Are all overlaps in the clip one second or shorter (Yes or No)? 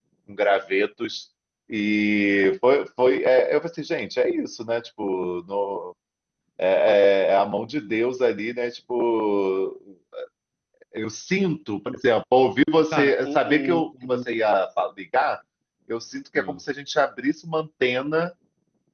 No